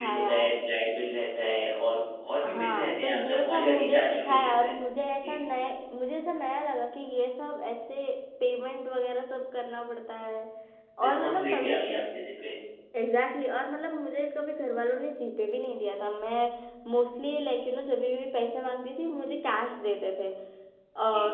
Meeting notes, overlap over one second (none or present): present